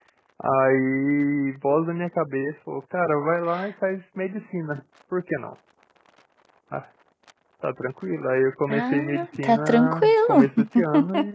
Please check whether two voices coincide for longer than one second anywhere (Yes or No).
Yes